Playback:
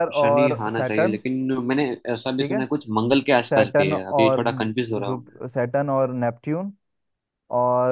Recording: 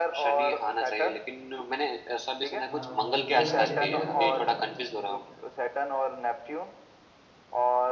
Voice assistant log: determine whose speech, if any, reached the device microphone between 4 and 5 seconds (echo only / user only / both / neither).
both